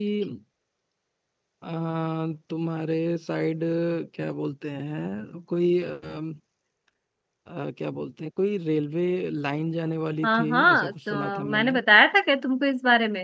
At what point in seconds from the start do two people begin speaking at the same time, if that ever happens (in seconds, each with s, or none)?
10.2 s